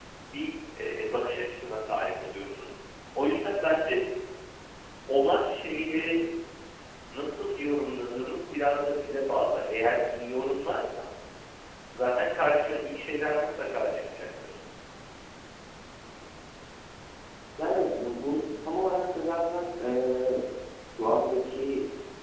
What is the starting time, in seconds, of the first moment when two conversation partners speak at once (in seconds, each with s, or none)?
none